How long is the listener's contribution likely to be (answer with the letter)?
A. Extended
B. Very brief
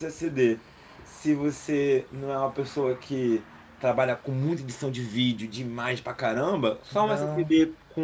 B